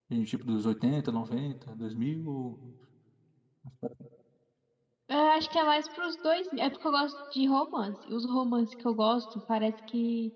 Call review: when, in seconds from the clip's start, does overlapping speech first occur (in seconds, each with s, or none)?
none